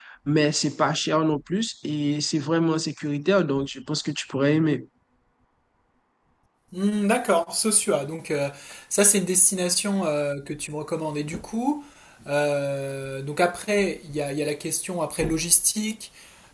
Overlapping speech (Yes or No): No